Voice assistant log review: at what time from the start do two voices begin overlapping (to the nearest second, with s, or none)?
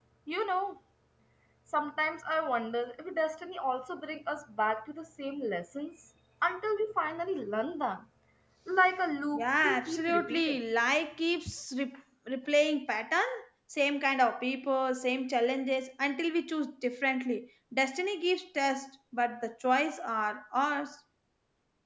9 s